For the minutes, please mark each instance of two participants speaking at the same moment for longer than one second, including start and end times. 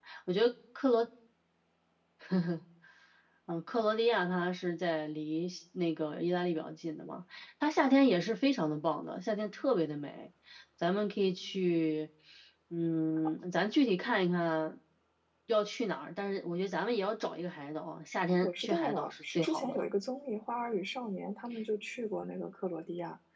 18.4-19.9

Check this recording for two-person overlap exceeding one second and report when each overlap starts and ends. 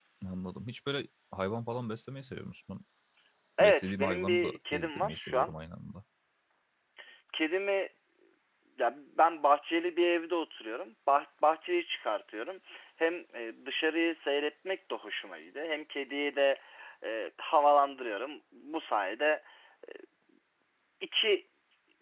3.7-5.5

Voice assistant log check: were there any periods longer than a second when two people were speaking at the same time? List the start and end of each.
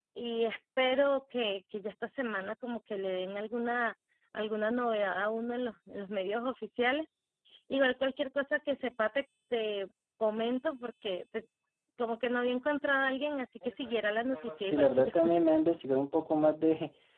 13.6-15.1

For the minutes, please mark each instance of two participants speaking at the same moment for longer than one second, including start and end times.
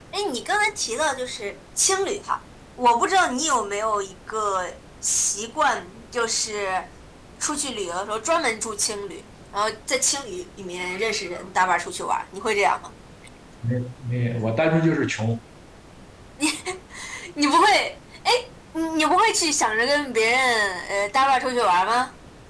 none

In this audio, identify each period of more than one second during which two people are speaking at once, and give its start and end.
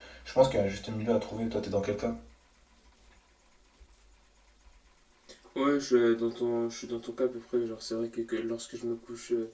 none

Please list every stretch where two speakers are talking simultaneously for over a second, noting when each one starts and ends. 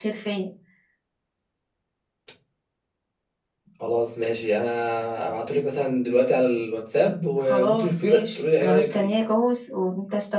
7.4-9.1

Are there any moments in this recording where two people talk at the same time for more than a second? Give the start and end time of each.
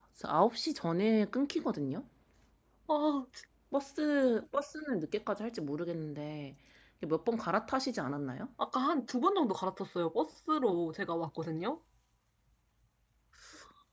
none

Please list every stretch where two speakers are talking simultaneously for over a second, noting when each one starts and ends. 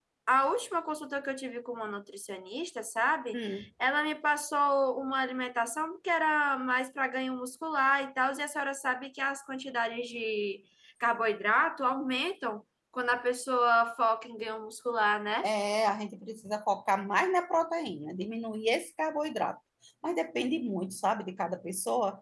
none

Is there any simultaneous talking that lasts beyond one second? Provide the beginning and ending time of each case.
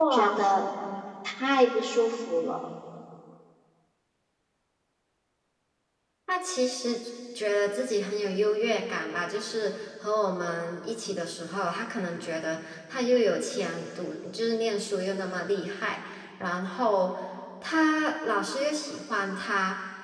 none

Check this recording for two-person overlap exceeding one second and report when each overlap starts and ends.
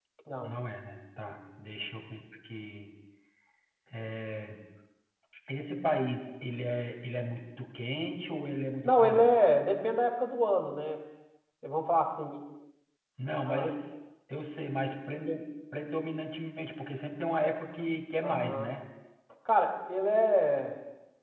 none

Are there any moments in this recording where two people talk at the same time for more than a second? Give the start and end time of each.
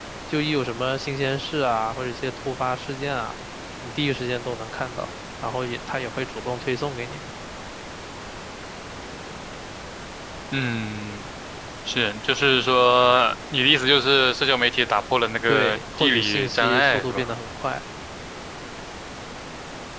15.5-17.2

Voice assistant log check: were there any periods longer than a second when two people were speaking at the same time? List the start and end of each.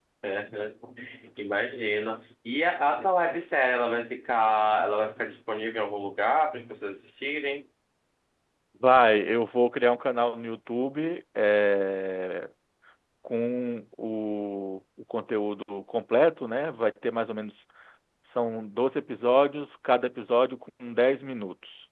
none

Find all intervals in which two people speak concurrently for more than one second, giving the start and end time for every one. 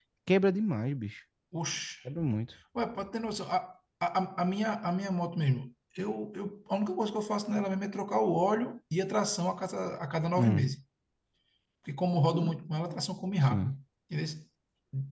none

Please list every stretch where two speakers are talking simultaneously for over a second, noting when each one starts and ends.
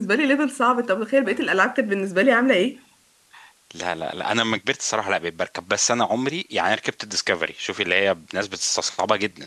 none

